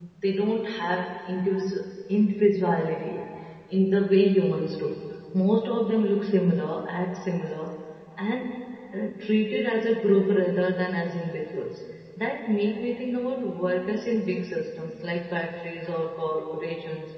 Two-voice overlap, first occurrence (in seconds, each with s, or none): none